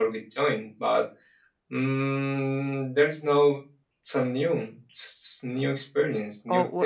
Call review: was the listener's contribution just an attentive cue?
No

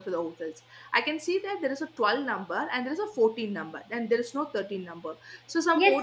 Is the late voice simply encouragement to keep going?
No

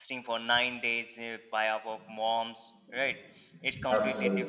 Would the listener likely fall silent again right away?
Yes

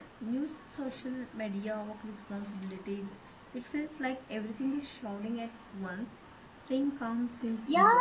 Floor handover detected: Yes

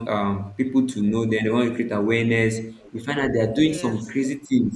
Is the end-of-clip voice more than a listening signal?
No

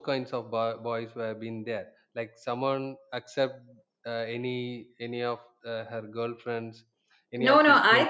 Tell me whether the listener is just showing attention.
No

